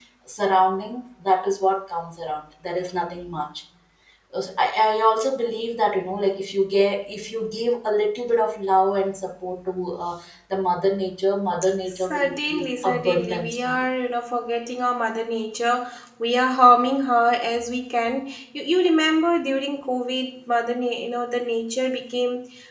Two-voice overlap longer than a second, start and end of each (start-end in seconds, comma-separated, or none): 11.9-13.8